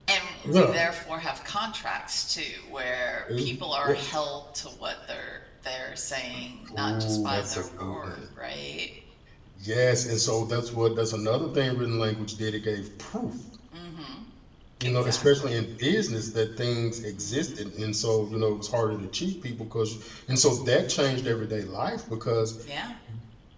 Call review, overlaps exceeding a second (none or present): present